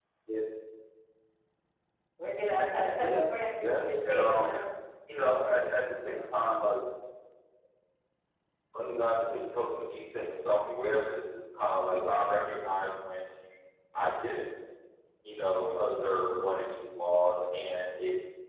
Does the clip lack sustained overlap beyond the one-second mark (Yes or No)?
No